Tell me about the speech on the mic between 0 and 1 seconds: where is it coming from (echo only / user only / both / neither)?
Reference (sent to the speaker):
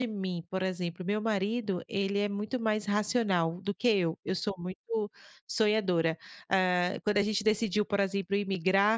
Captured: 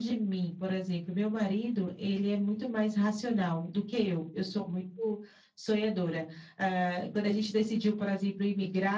echo only